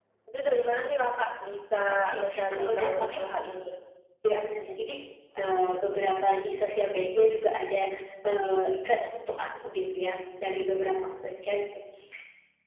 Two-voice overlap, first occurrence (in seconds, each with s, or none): 1.9 s